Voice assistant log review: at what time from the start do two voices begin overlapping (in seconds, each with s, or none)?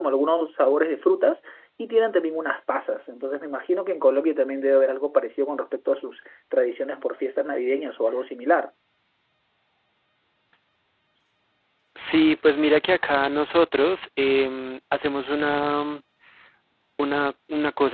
none